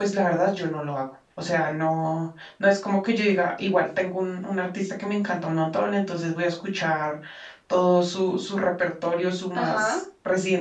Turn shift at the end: No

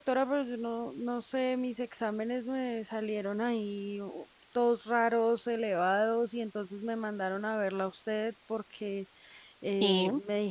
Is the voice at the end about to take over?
No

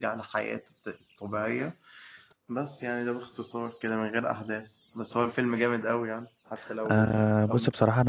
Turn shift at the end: Yes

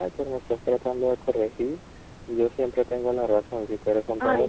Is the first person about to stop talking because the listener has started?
No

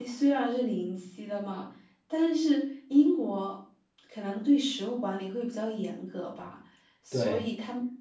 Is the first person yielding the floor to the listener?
No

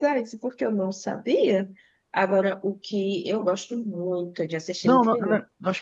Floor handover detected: Yes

